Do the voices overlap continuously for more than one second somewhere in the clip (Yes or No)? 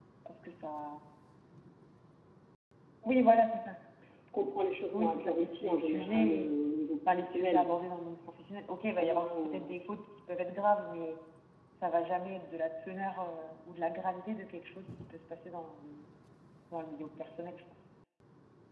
Yes